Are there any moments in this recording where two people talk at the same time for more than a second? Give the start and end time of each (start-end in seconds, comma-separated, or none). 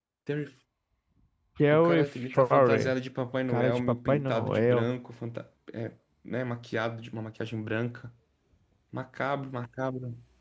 1.7-2.9, 3.5-4.9